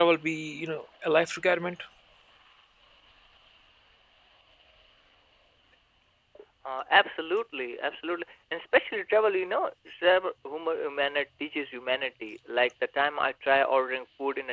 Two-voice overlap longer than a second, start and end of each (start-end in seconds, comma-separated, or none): none